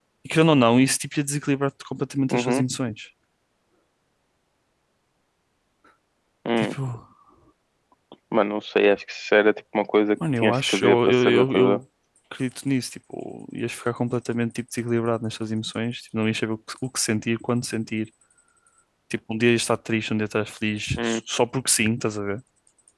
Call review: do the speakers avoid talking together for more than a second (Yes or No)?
No